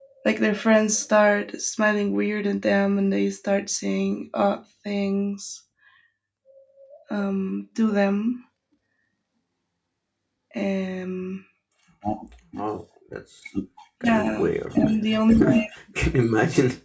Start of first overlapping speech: 14 s

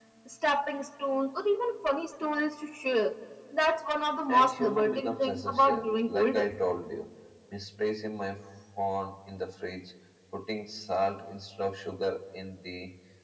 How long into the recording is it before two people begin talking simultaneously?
4 s

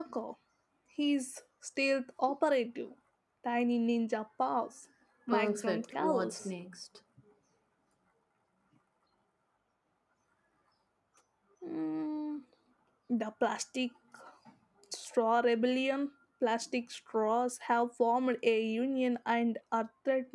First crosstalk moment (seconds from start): 5 s

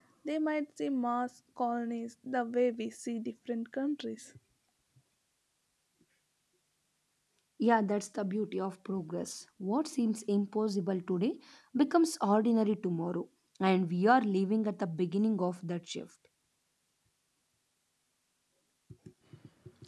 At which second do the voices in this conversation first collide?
none

